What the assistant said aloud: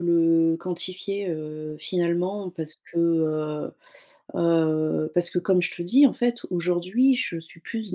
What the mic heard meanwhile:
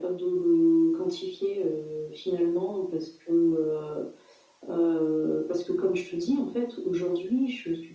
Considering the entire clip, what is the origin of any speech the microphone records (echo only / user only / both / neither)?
echo only